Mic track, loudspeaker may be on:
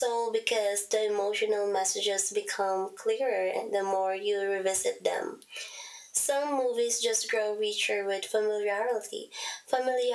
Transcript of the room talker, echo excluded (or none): none